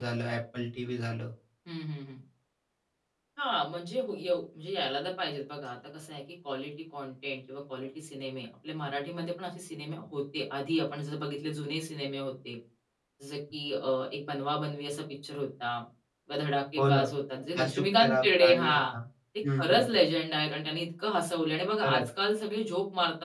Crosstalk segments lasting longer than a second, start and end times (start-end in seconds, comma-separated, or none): 17.6-18.8